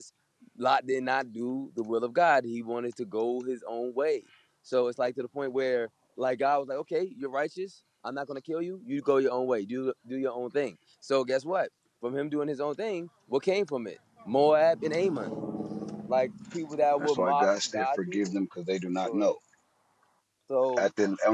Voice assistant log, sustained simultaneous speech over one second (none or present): present